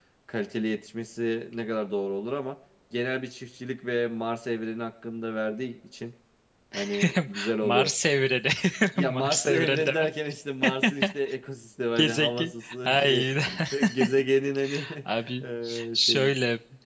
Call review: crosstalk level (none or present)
present